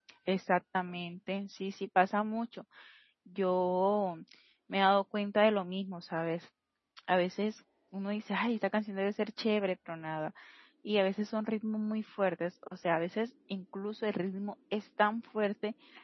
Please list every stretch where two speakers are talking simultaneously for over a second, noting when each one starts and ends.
none

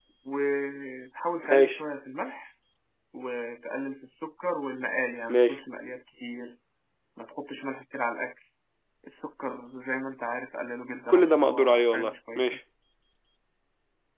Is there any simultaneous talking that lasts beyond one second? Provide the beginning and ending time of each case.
11.1-12.6

